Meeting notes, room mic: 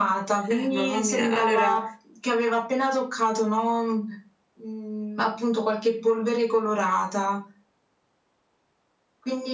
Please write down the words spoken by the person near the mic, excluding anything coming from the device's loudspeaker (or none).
Eh, mamma mia. Allora